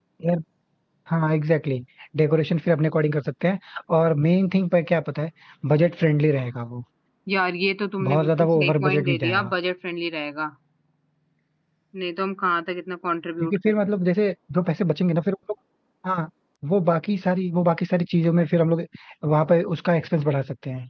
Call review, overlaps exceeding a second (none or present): present